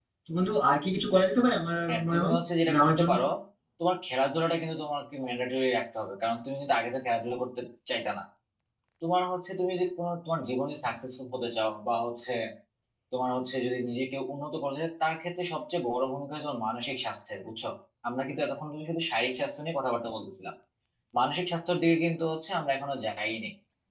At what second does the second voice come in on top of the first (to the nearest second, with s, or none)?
2 s